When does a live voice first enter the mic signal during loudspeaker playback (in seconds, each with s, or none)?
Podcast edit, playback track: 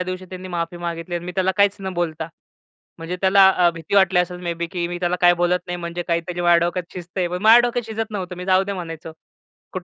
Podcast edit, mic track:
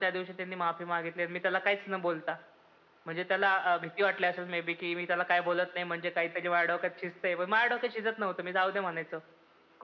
none